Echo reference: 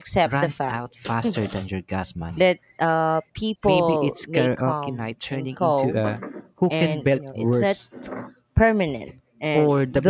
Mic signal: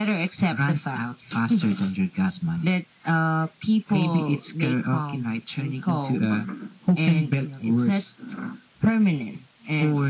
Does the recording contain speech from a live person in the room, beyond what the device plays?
No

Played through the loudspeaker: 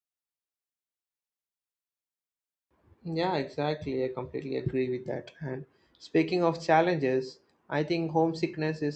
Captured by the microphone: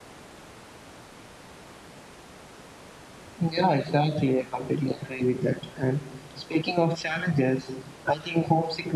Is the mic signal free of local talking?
Yes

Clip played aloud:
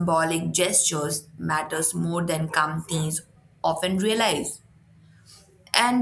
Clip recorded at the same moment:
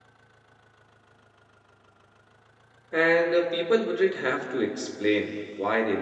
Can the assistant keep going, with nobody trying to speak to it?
No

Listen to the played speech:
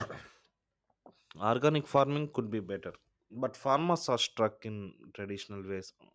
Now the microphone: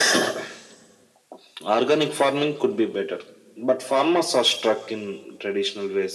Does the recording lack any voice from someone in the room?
Yes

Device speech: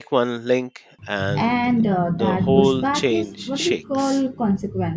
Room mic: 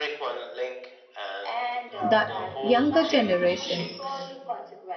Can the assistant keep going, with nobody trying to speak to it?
No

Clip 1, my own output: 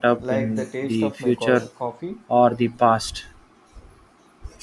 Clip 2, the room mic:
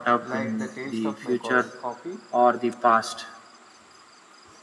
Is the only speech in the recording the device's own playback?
Yes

